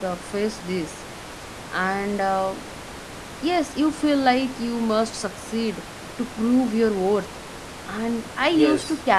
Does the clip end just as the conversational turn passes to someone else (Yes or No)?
No